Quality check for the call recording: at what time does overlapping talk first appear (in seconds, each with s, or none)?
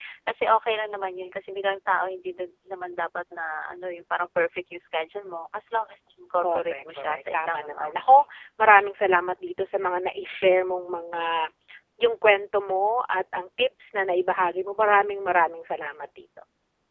6.4 s